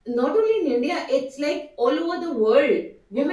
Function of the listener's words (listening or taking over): taking over